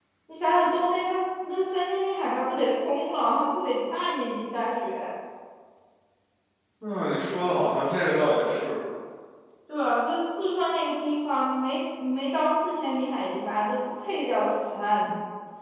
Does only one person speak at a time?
Yes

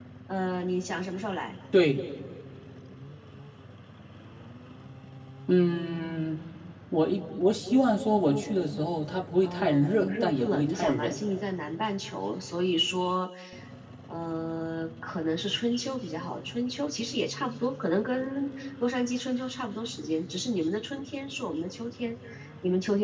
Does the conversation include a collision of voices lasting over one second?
Yes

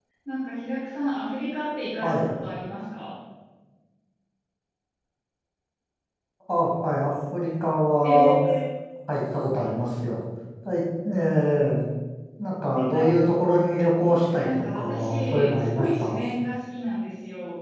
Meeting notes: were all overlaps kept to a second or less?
No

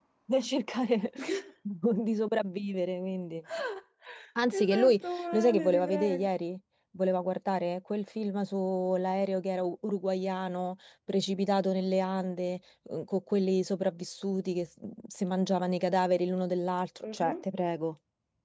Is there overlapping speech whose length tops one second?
Yes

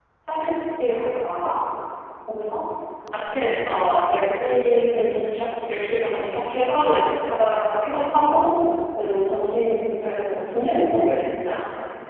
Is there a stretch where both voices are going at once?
No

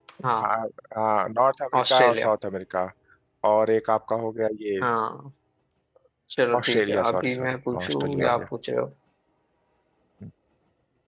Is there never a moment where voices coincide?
No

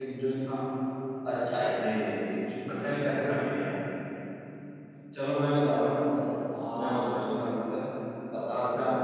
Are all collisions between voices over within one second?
Yes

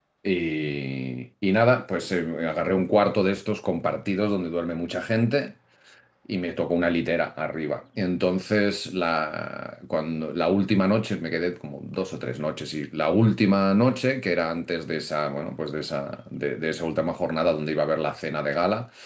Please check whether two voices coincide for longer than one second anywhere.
No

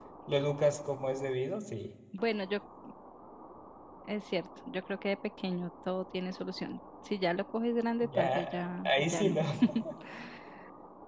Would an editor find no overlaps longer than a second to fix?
No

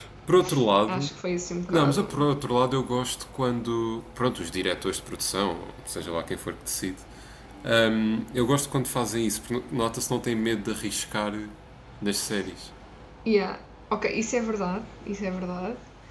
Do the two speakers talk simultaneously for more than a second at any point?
No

